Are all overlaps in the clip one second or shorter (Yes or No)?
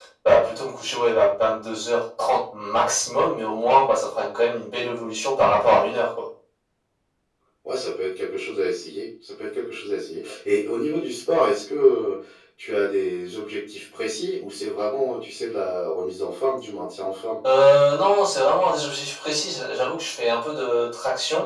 Yes